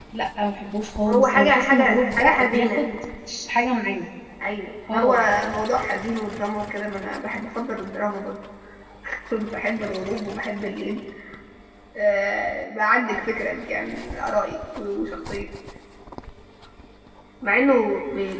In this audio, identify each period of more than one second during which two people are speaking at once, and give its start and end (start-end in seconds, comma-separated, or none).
1.1-2.8